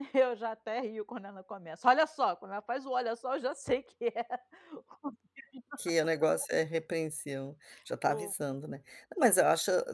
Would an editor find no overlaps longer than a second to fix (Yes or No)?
Yes